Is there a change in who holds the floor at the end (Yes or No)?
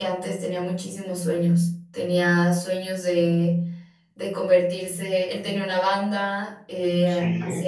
No